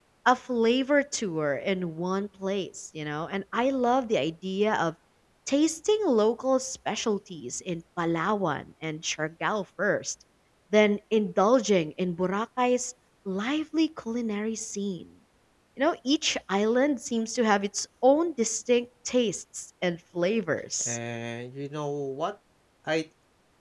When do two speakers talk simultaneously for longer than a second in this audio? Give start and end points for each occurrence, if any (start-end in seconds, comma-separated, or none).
none